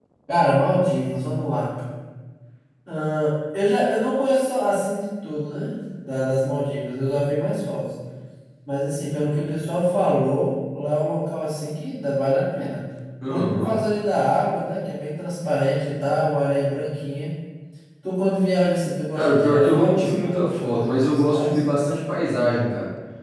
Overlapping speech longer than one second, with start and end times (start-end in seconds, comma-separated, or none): 19.1-21.6